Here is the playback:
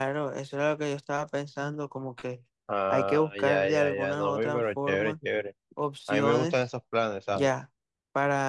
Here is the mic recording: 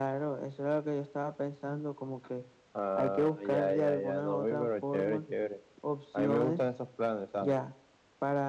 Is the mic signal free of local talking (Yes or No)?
Yes